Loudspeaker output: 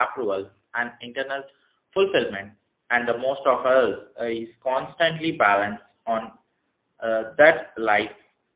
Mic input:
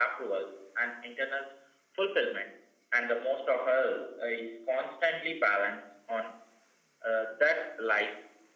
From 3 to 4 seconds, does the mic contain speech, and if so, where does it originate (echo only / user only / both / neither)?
echo only